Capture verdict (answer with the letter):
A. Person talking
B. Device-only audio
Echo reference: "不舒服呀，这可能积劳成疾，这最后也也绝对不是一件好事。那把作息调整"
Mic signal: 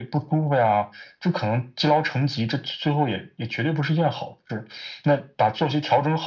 B